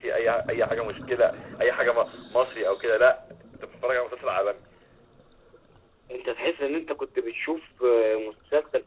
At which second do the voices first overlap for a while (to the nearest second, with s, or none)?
none